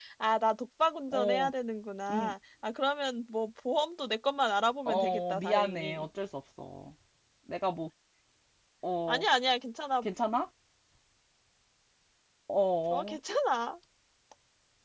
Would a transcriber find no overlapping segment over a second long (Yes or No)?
No